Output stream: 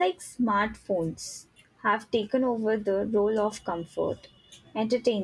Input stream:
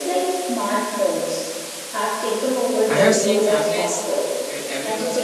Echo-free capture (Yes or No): No